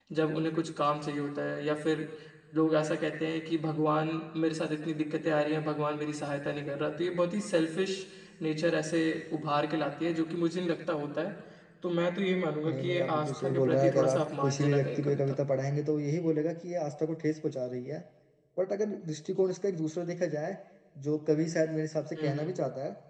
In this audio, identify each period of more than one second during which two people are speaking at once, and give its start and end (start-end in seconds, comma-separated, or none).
12.7-15.3